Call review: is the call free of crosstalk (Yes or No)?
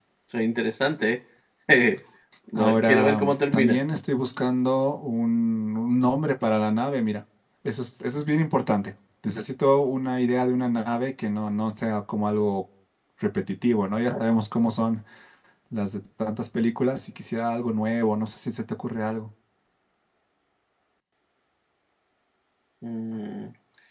No